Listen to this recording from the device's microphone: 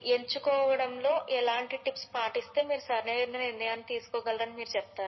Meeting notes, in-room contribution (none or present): none